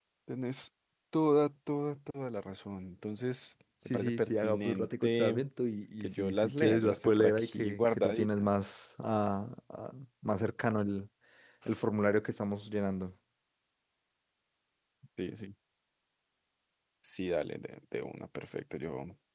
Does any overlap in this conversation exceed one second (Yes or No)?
Yes